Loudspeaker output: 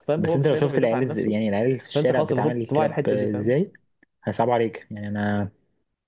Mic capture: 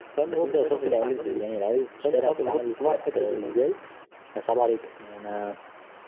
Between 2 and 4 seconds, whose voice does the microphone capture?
echo only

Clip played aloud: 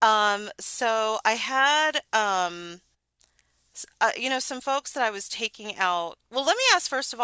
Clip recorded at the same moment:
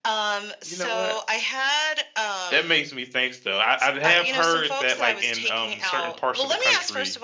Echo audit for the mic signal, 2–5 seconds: both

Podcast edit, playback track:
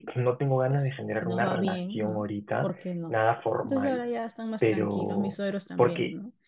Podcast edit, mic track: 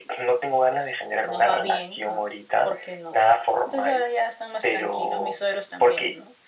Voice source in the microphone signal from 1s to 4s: echo only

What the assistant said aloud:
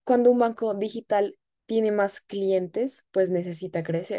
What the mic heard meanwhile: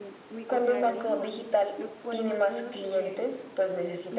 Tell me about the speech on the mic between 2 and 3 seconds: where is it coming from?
both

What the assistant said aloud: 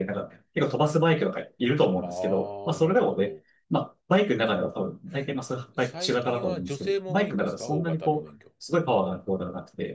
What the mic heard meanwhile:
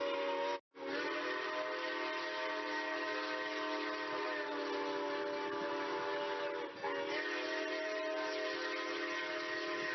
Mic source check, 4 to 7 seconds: neither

